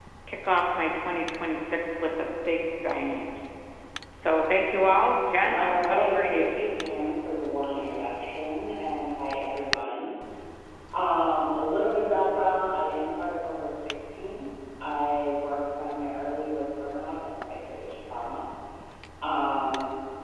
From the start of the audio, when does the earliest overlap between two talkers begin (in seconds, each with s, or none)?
5.4 s